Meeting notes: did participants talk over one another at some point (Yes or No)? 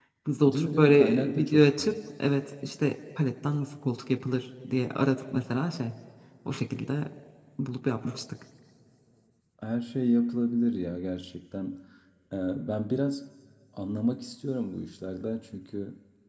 Yes